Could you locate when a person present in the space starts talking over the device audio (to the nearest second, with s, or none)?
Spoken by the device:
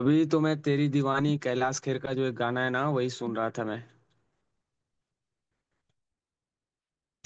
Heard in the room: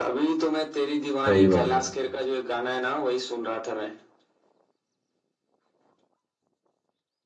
1 s